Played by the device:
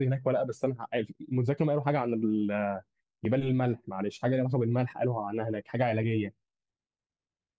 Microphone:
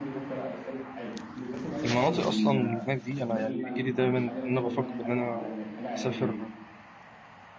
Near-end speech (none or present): present